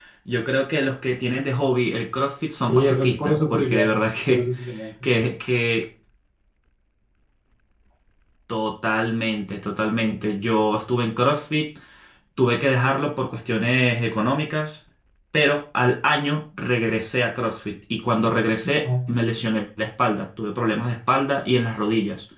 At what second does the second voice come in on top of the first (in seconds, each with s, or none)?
2.6 s